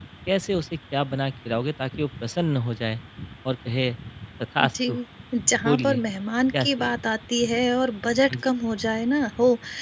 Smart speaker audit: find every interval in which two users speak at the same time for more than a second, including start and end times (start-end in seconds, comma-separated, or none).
none